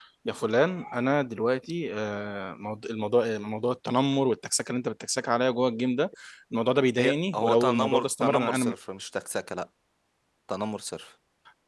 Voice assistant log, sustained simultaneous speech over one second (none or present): present